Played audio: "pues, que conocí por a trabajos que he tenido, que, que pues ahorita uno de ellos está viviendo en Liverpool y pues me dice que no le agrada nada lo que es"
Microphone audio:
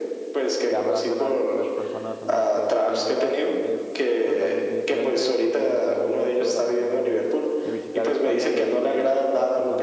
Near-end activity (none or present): present